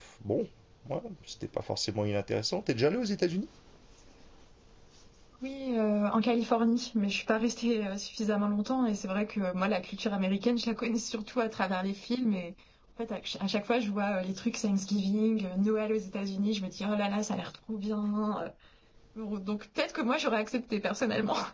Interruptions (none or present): none